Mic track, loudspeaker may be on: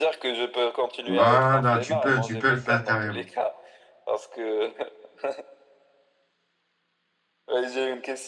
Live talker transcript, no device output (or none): Voilà, tu peux, tu peux le faire carrément.